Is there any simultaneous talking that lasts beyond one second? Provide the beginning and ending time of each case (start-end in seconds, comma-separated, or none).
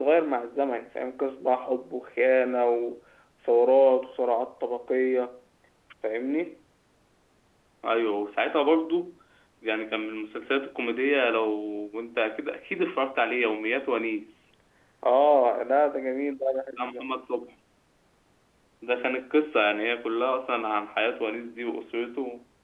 none